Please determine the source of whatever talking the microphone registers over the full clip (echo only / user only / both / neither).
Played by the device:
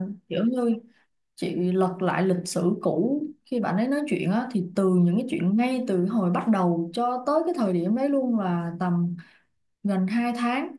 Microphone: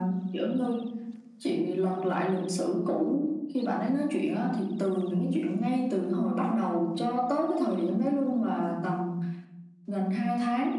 echo only